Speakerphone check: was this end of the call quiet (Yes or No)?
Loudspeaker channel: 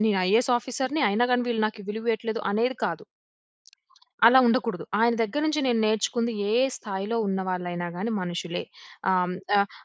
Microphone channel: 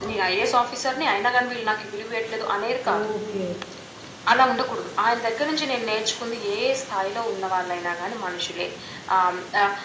No